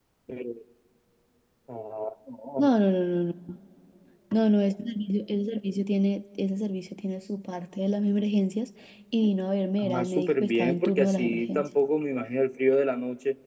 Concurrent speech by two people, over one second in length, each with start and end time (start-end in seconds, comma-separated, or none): 9.8-11.7